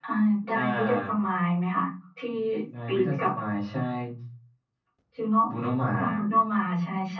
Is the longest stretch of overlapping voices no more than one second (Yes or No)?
Yes